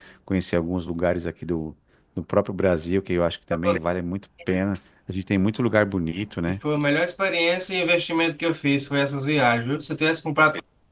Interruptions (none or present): none